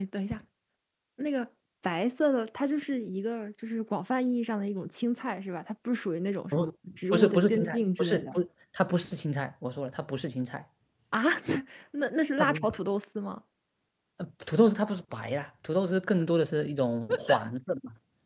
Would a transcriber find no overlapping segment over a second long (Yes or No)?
No